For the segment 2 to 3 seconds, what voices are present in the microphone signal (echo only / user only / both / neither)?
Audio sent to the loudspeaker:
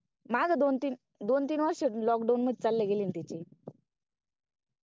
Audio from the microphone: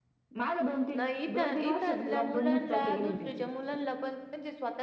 both